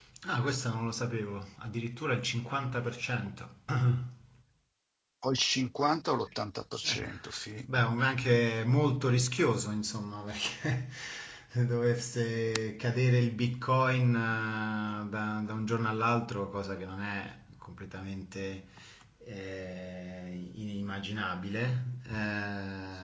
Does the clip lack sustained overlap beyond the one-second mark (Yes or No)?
Yes